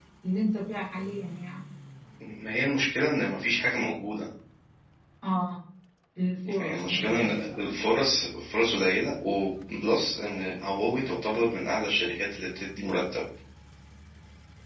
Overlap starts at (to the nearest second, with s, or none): 7 s